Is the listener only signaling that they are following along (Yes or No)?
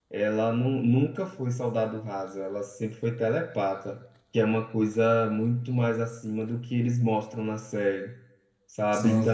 Yes